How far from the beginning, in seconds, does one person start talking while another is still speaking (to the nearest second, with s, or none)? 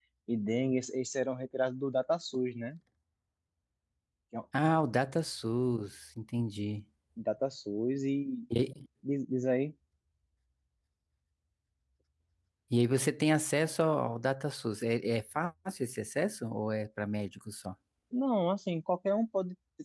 none